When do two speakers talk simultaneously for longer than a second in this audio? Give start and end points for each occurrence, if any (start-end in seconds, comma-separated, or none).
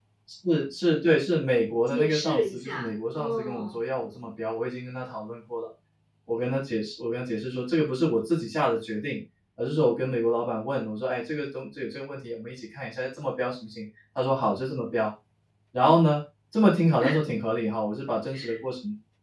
1.9-3.8